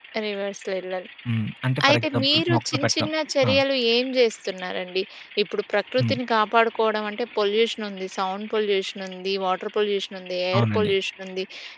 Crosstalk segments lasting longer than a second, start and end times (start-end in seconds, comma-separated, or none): 1.9-3.1